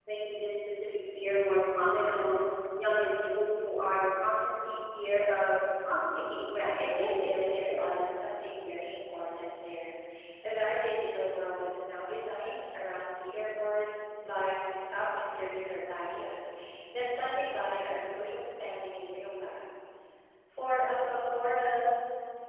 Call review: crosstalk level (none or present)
present